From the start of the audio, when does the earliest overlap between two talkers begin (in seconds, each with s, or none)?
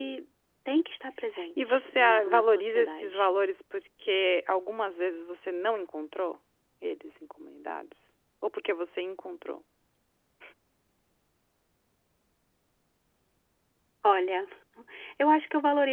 1.4 s